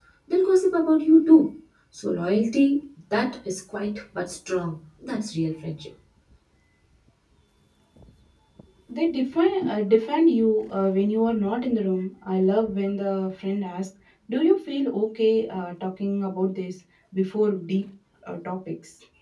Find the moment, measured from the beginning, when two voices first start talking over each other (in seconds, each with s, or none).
none